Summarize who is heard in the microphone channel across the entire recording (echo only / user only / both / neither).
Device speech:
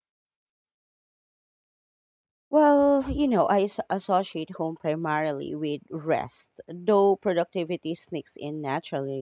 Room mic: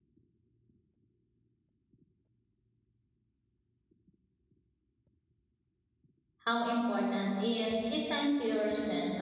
user only